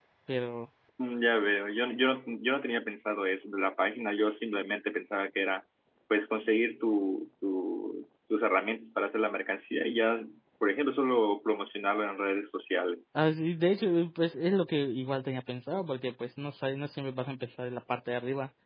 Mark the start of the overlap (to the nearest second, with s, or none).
none